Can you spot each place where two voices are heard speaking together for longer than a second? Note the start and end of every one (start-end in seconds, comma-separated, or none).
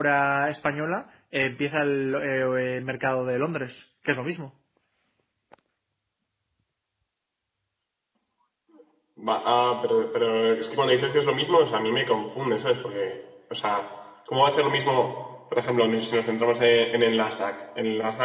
none